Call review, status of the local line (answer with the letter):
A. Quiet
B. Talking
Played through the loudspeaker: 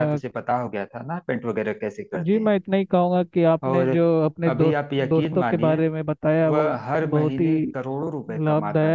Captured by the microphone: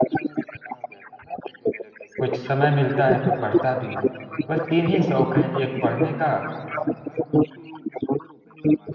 B